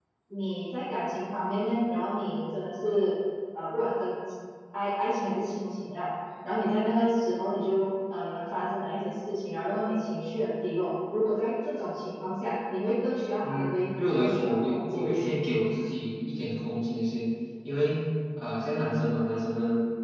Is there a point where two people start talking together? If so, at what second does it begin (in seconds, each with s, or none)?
13.4 s